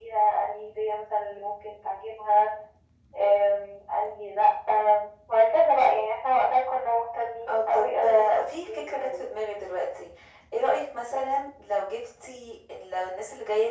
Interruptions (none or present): present